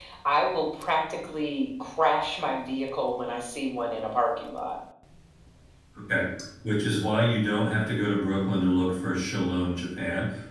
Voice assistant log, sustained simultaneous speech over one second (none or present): none